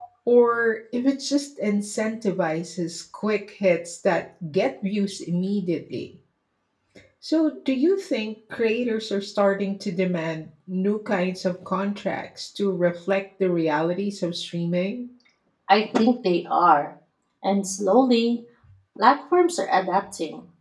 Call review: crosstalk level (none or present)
none